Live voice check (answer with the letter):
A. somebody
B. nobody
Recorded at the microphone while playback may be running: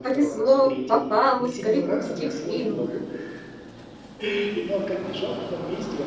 A